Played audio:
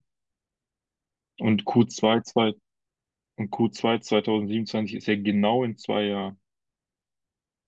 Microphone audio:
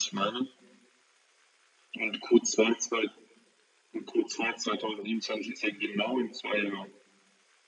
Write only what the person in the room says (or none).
none